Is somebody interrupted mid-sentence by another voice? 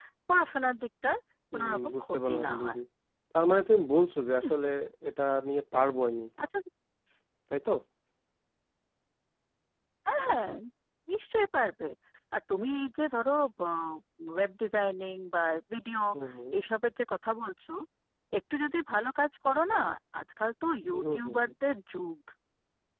Yes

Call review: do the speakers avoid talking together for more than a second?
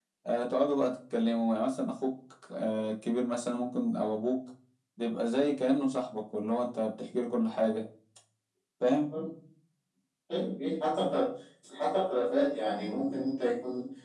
Yes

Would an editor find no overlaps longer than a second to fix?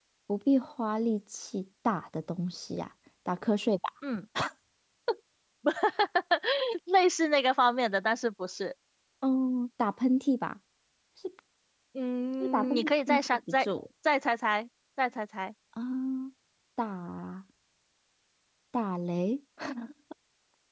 No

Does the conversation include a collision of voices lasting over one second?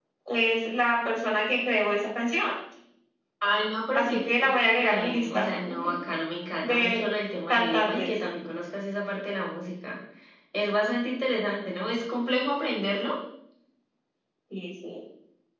Yes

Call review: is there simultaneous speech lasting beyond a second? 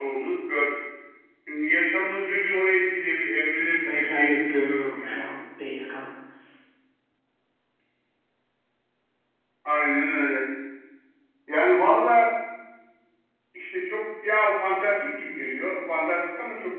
Yes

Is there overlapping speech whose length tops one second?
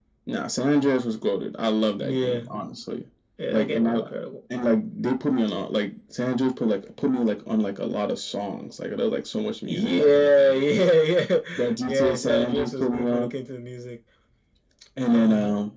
Yes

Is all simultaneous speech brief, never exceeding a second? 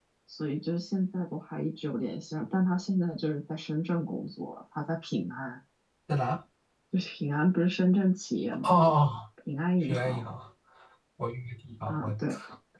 Yes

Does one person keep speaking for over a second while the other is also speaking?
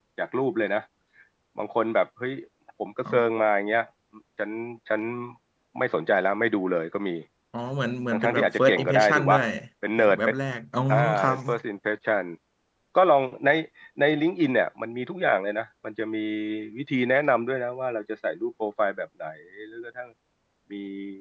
Yes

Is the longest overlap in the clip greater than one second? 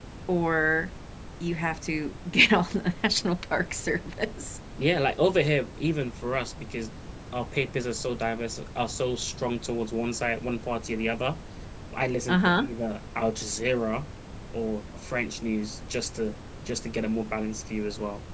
No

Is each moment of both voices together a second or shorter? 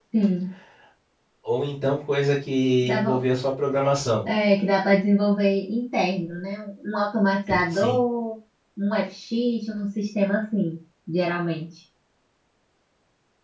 Yes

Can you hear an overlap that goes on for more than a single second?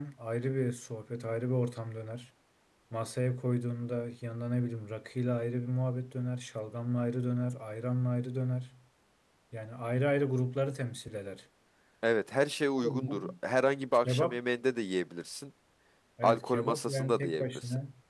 Yes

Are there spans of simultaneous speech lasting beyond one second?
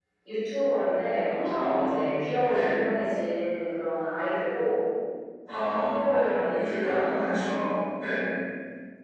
Yes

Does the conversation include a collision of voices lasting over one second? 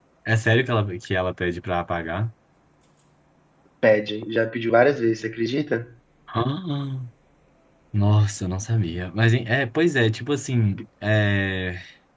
No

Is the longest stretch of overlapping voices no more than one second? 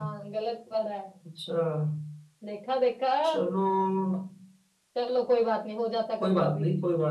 Yes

